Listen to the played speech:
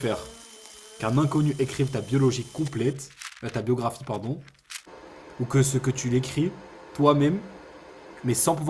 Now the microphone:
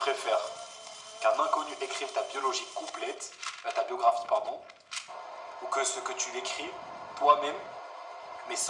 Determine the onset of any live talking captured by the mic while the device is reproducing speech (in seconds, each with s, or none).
none